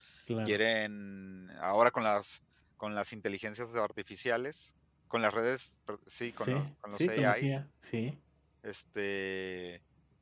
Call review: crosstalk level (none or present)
present